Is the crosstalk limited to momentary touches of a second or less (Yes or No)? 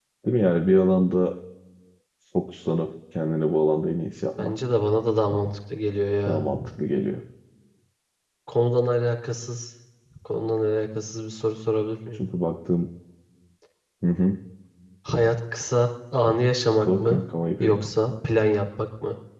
Yes